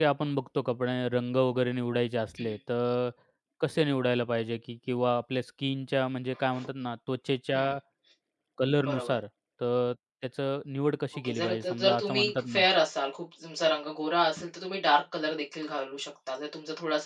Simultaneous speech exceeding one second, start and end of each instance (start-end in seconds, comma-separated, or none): 11.2-12.6